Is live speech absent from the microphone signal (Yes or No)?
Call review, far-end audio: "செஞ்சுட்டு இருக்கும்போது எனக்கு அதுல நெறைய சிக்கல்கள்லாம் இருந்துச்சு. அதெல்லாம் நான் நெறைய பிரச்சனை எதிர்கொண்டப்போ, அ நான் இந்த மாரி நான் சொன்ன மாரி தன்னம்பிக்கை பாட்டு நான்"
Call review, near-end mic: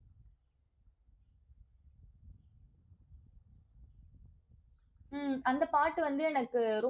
No